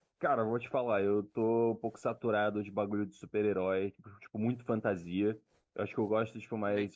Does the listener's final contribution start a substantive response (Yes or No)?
No